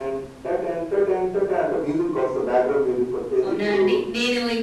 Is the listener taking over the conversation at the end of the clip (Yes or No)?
Yes